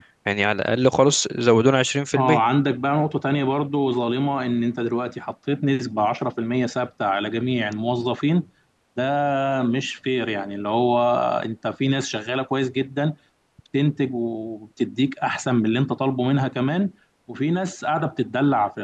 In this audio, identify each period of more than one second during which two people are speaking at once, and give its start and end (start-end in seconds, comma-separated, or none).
none